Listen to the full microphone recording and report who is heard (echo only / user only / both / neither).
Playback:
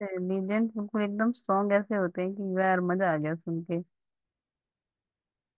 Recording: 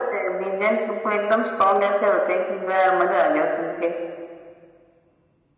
echo only